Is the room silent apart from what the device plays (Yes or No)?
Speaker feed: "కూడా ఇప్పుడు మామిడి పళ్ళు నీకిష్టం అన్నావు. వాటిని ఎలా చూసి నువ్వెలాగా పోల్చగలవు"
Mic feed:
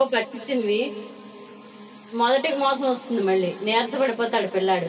No